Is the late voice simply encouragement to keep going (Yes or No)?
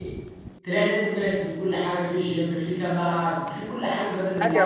No